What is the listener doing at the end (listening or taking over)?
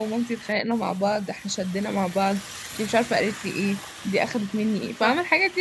listening